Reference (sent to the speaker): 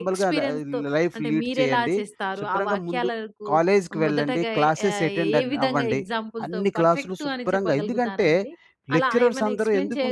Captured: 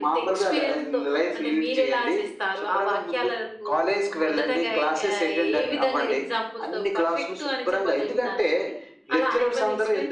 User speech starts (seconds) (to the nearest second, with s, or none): none